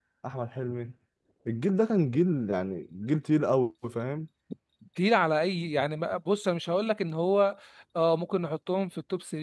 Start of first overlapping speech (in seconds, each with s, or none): none